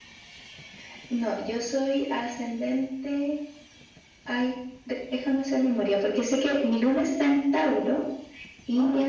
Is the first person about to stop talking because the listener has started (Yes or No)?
No